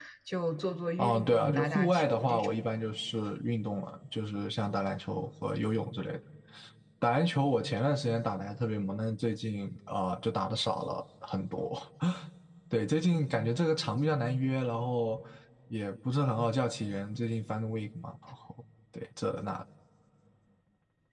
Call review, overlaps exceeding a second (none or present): present